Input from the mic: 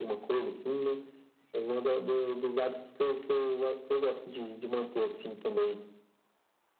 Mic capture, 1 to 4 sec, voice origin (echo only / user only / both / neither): echo only